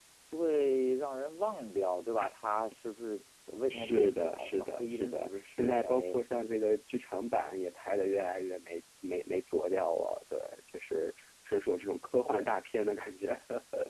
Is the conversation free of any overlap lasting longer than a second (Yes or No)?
No